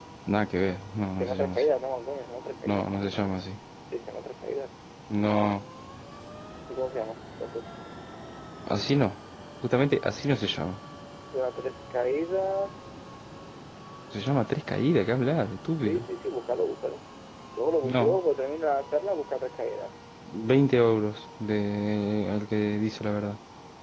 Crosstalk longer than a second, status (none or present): none